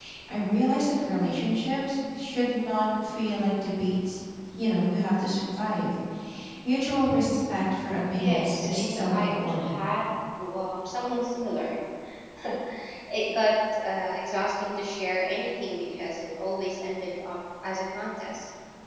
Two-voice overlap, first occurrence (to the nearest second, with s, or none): 8 s